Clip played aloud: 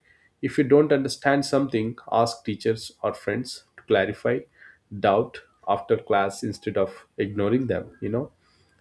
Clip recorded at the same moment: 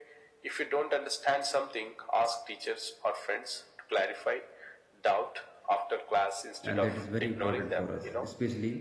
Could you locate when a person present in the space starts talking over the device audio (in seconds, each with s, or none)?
6.6 s